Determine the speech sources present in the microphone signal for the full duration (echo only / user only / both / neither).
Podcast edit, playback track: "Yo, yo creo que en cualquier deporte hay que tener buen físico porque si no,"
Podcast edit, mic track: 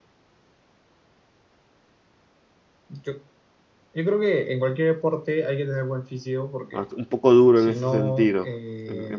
both